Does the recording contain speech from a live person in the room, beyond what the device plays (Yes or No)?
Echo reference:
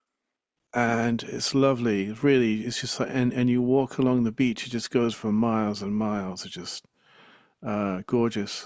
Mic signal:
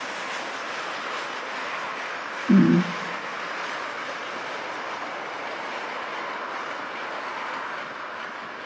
Yes